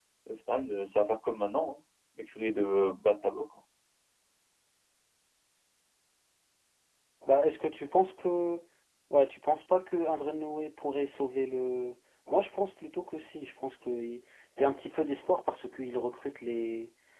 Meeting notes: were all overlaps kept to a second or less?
Yes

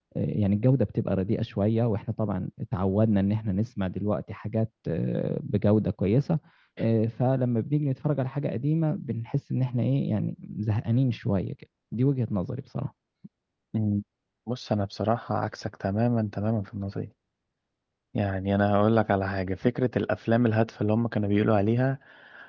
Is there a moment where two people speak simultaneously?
No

